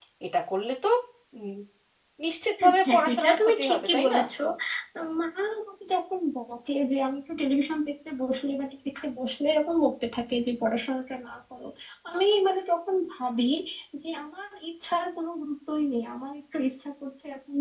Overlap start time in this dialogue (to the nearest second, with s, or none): 3 s